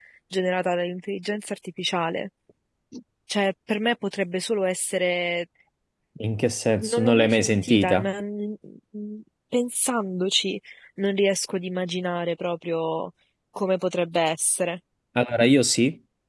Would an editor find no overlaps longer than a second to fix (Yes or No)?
No